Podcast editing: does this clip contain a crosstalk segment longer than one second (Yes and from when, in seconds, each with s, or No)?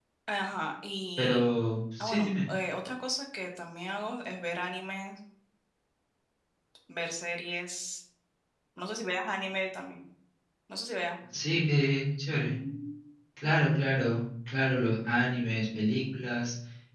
No